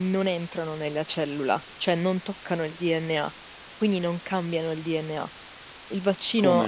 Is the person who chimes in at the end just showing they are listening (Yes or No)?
No